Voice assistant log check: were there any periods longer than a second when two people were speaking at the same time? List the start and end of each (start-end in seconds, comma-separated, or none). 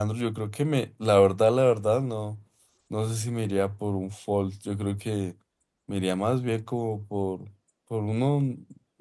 none